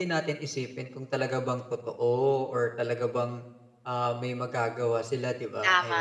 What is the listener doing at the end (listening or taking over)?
taking over